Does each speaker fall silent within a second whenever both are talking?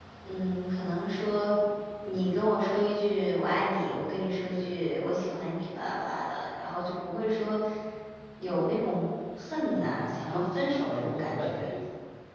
No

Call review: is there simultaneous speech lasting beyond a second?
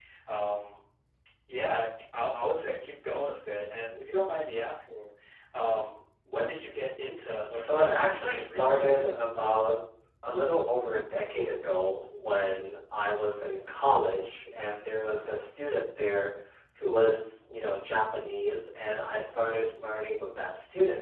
Yes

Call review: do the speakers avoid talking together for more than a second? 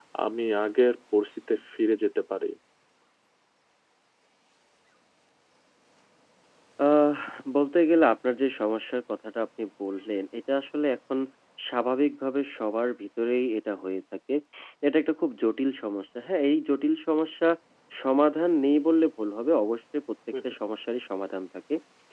Yes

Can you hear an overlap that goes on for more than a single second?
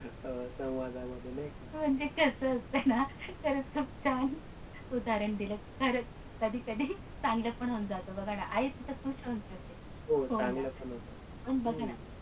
No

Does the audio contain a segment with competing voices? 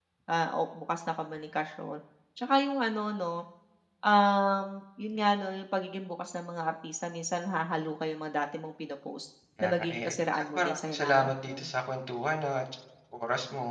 Yes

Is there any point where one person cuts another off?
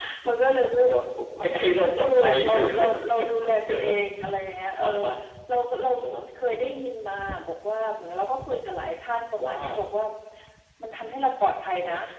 Yes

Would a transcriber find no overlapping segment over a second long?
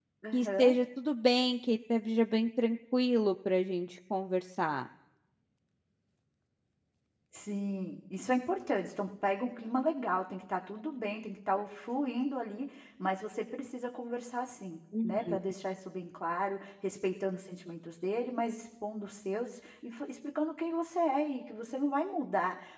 Yes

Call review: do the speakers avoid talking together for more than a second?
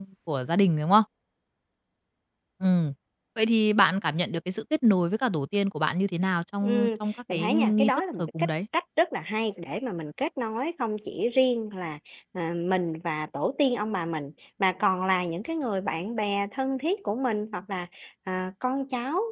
No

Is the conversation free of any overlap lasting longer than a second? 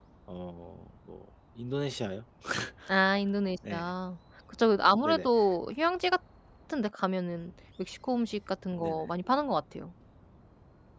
Yes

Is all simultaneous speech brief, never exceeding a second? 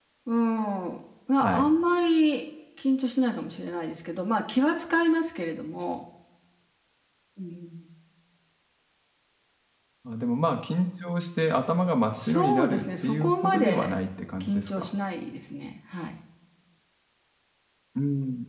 No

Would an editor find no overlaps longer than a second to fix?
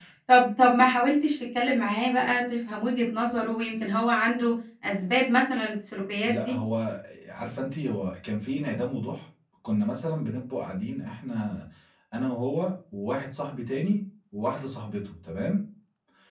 Yes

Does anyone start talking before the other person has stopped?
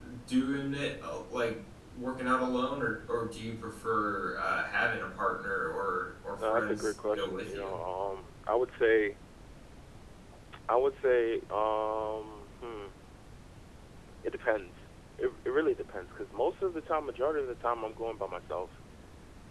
Yes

